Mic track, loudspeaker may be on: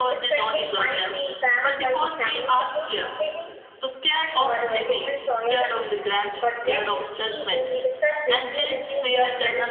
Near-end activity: present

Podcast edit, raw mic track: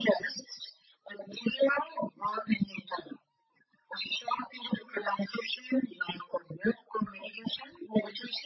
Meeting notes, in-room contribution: none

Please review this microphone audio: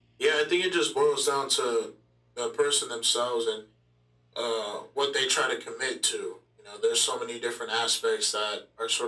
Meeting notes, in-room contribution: none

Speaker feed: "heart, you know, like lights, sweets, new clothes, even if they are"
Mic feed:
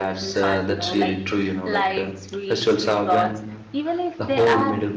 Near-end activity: present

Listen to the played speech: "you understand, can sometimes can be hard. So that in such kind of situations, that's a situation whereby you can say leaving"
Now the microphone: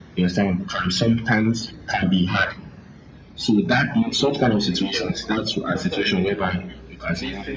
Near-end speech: present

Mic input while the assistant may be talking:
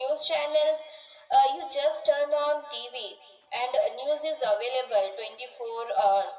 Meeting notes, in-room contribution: none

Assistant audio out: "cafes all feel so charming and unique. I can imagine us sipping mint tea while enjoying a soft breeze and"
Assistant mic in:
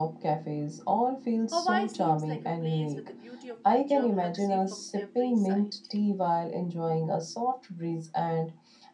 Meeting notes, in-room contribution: present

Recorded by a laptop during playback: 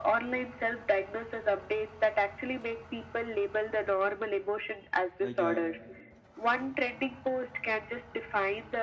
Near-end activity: present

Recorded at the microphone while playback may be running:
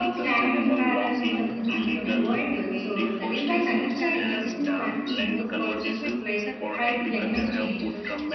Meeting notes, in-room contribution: present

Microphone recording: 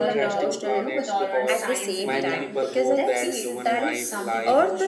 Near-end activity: present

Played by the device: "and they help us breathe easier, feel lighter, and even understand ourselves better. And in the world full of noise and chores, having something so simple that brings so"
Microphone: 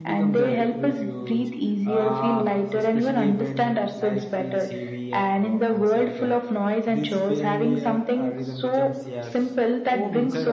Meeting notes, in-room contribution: present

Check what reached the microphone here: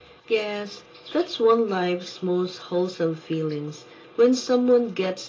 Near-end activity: none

